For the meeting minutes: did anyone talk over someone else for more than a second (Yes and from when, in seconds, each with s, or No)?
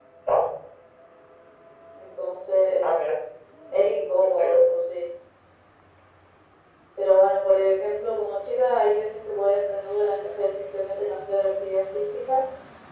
No